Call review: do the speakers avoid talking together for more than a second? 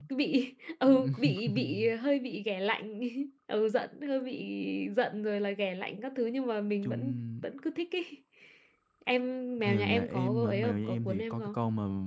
No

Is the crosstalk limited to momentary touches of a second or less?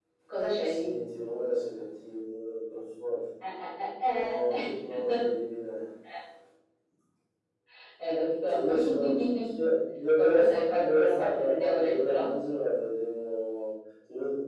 No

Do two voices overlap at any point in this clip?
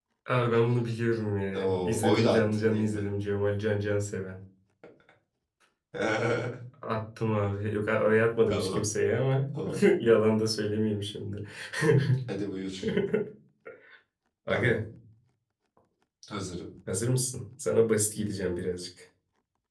Yes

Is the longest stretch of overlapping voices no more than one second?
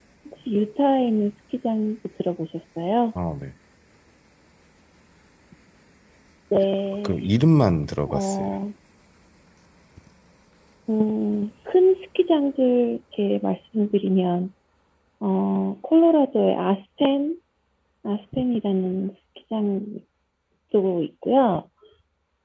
Yes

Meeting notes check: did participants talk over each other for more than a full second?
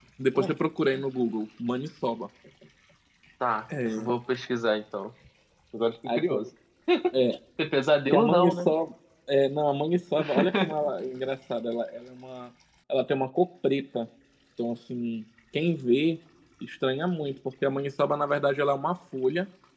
No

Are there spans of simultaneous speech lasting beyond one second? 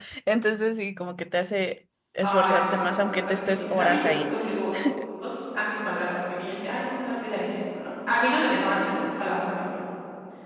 Yes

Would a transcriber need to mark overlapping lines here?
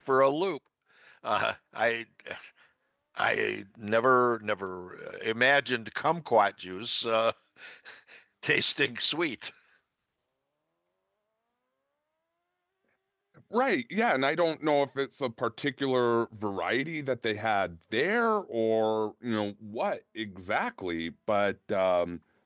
No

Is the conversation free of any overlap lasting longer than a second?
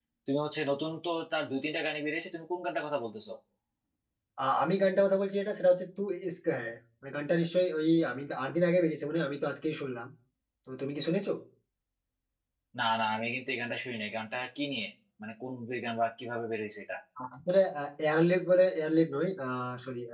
Yes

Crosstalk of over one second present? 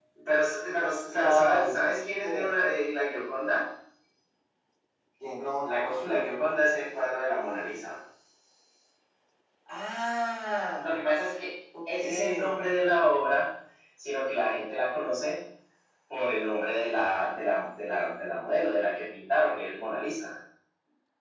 Yes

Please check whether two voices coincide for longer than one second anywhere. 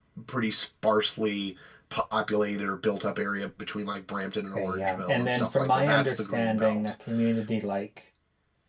Yes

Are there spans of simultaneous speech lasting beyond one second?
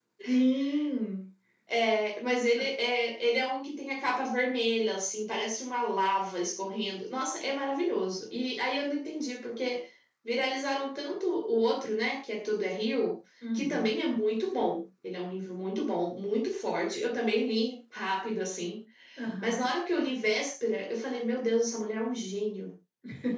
No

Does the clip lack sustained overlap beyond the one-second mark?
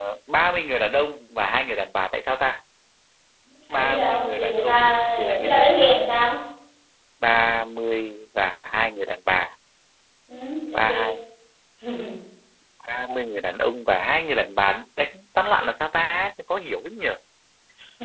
No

